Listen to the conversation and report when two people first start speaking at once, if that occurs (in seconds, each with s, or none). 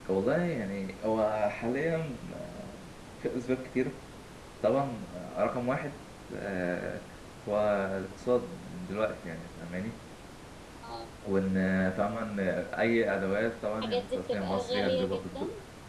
13.8 s